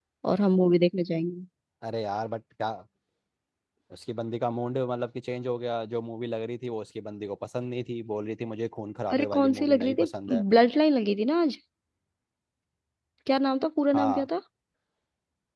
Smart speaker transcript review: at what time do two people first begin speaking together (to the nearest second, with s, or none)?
9 s